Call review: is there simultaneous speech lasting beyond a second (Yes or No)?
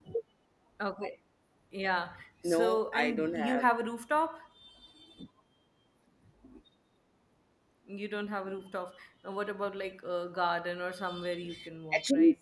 Yes